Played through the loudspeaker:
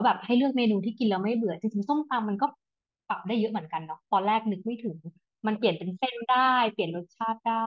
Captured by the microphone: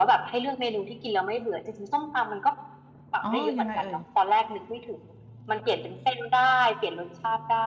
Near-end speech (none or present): present